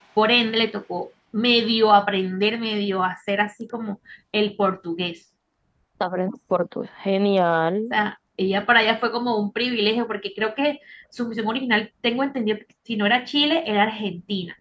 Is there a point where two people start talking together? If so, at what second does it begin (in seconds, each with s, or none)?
none